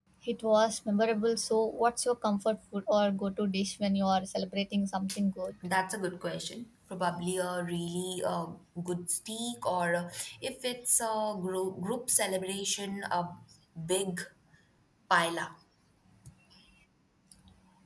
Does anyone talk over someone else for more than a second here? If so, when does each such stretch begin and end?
none

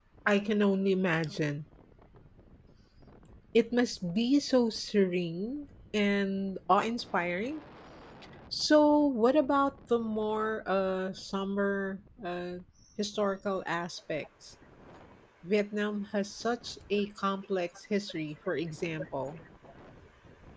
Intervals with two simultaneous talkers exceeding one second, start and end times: none

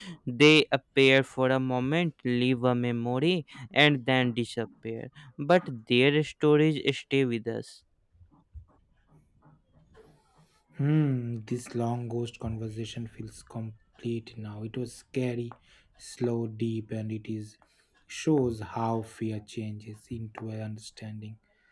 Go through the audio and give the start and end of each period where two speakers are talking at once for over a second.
none

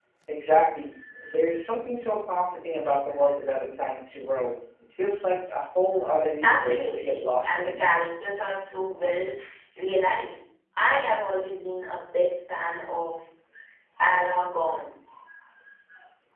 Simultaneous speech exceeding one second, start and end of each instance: 6.4-7.8

